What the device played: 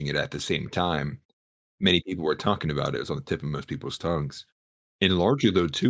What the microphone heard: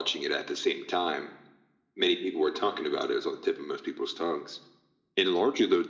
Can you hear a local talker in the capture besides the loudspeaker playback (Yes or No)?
No